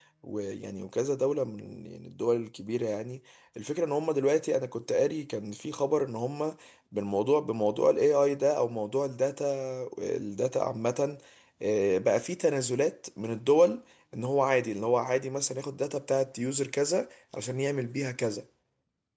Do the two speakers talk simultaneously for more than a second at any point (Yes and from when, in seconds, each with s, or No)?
No